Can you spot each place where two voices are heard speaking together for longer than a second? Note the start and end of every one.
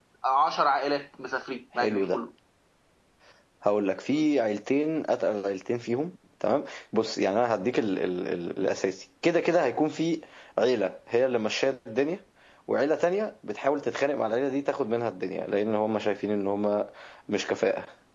none

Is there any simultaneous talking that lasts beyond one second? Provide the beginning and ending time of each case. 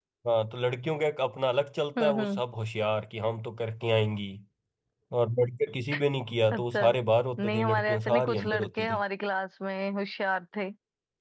7.4-9.0

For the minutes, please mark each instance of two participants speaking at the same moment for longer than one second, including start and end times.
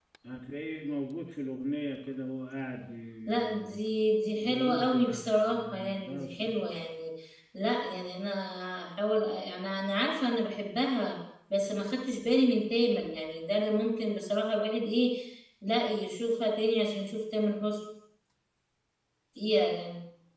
4.4-6.2

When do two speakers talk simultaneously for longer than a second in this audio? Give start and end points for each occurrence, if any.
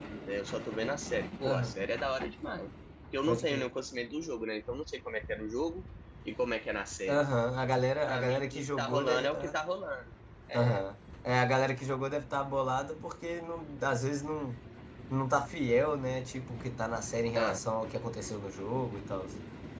8.0-9.6

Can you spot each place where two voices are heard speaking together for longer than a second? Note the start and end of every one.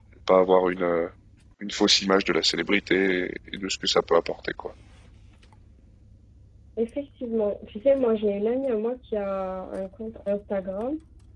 none

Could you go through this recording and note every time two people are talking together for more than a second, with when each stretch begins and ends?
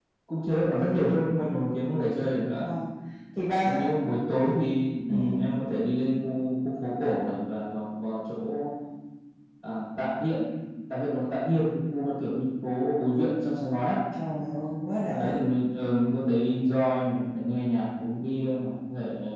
none

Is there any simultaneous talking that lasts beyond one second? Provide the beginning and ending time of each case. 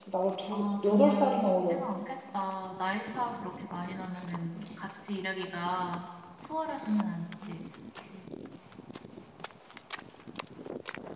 0.5-1.8

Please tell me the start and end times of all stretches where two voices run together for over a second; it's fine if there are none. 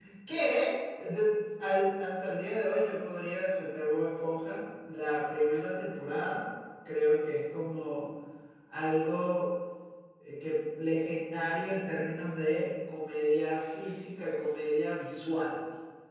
none

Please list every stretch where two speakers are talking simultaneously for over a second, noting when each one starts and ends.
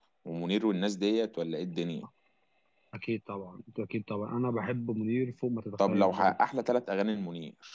none

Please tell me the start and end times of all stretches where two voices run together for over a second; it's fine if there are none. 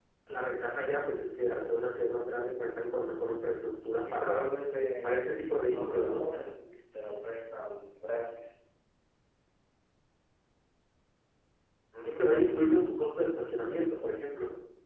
5.0-6.3

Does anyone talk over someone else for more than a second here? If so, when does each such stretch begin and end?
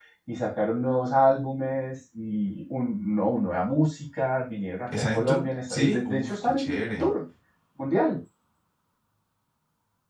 4.9-7.1

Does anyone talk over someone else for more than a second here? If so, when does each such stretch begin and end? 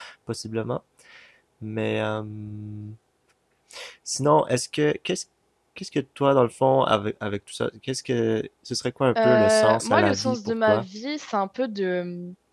9.2-10.8

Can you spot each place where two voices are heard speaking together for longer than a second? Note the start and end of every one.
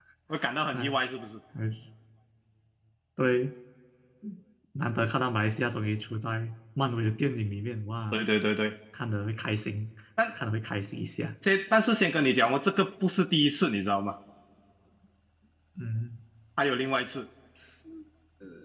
none

